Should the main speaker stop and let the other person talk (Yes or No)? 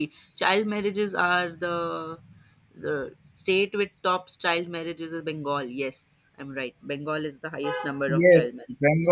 Yes